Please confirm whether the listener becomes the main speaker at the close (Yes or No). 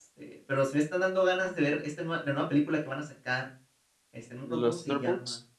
No